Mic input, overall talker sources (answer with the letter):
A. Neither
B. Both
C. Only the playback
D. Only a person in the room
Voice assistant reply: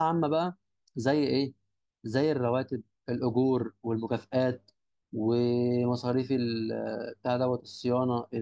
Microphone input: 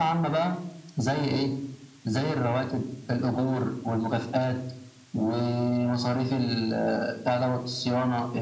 C